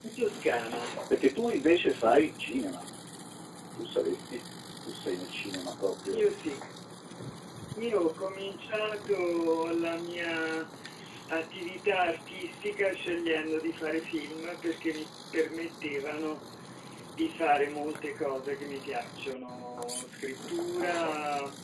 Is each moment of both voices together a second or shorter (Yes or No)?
Yes